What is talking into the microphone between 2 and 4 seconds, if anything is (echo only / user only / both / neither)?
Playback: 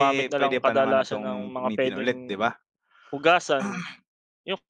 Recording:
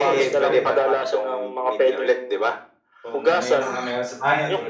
both